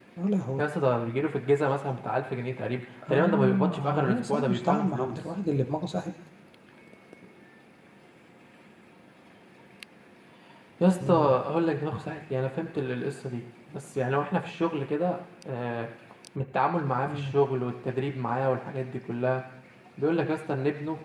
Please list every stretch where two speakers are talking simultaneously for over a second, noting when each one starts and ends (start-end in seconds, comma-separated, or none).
3.1-5.2